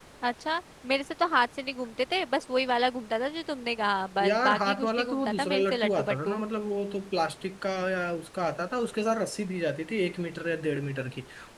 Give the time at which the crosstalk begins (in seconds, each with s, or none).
4.2 s